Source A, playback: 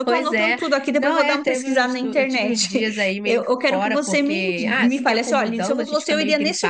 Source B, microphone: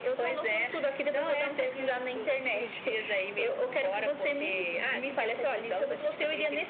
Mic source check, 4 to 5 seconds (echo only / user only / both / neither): echo only